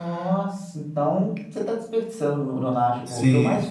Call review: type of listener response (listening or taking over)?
listening